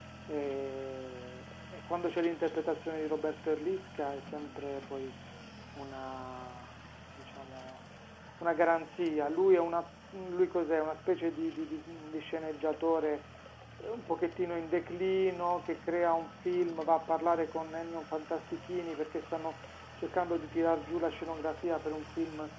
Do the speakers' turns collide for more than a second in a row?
No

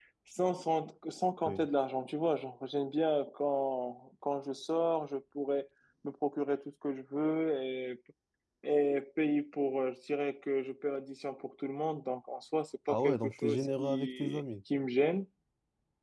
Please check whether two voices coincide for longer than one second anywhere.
Yes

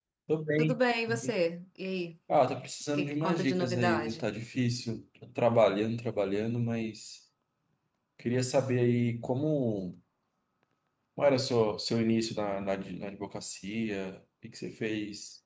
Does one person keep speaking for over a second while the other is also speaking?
Yes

